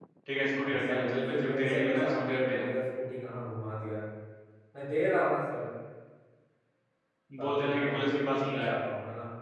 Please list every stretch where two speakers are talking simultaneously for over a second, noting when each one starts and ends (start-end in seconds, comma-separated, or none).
0.6-2.6, 7.4-8.7